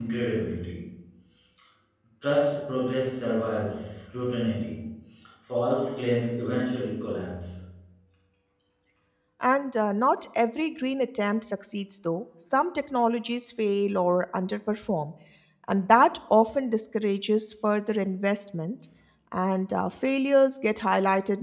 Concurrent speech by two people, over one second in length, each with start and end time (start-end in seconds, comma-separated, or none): none